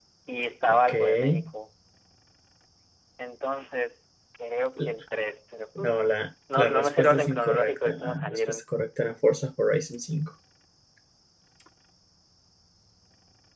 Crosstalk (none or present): present